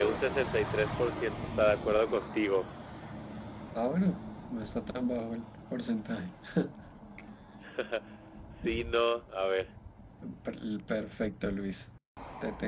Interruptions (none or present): none